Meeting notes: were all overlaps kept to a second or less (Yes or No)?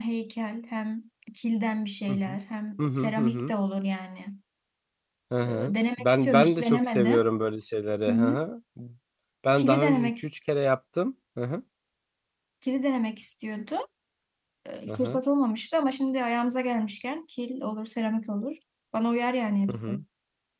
No